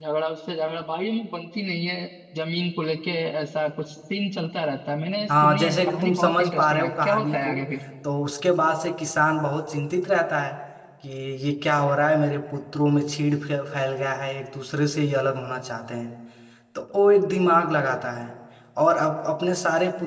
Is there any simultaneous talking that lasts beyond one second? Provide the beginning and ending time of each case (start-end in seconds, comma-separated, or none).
5.4-7.5